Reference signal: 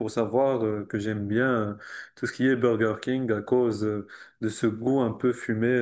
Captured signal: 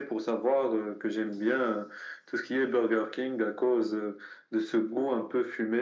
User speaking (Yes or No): No